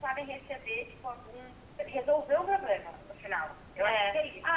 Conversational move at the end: taking over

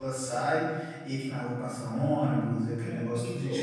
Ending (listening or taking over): listening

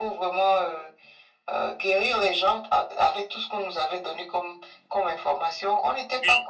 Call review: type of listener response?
taking over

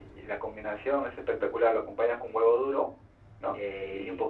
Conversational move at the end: listening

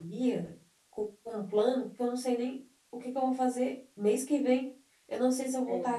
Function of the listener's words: listening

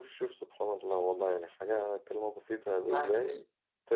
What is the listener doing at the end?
listening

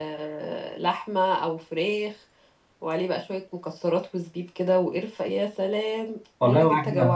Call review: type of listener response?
taking over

